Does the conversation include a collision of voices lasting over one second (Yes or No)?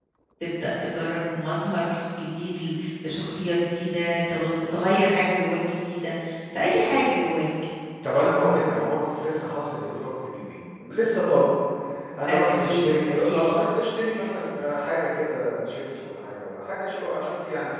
Yes